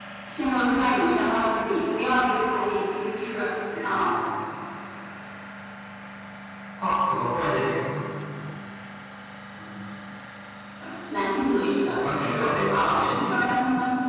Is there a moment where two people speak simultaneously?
Yes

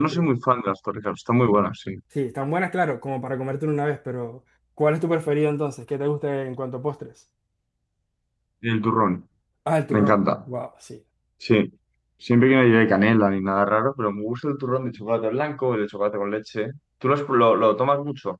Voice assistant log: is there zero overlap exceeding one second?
Yes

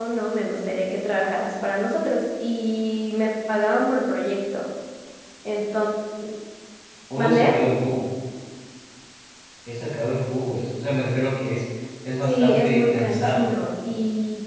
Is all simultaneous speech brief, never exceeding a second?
No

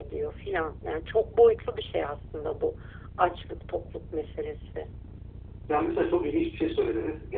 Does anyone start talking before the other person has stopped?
No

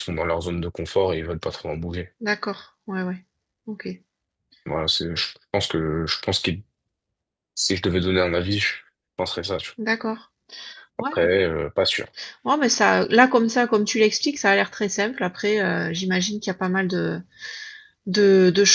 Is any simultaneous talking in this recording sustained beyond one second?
No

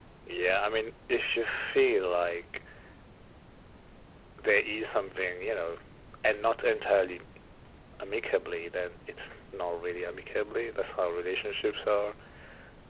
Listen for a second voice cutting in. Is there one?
No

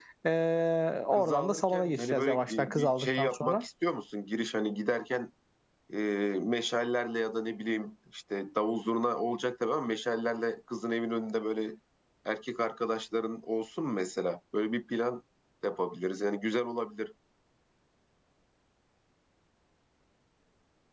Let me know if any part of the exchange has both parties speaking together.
Yes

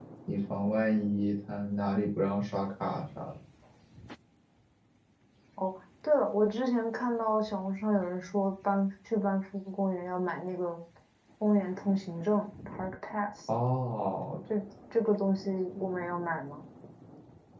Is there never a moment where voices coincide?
Yes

